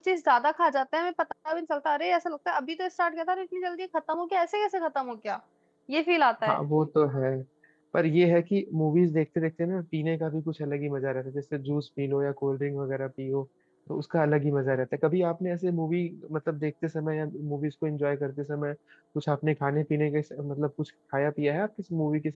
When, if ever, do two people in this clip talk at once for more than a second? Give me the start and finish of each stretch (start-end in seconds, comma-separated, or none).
none